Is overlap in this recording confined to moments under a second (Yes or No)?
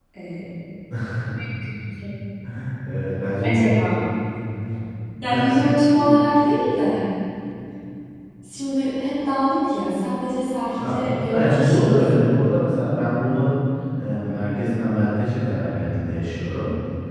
No